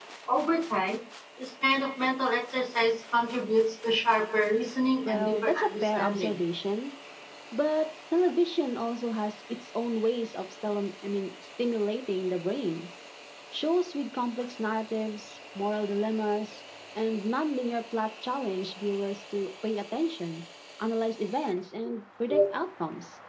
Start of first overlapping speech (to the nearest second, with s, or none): 5 s